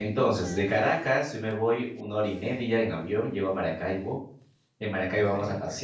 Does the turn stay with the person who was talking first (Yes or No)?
Yes